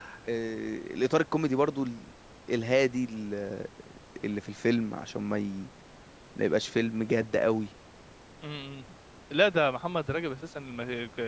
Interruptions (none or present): none